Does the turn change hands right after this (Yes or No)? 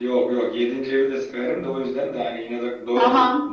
Yes